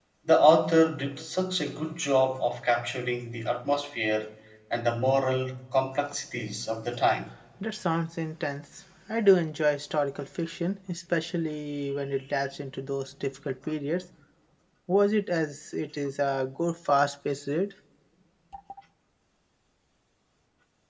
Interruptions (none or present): none